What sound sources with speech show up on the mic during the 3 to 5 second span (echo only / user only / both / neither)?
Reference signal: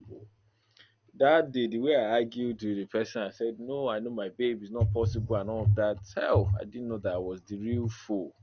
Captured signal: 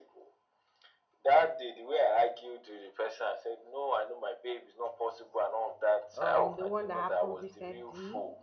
echo only